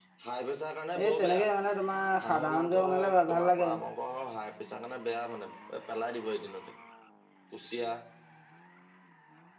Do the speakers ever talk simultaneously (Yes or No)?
Yes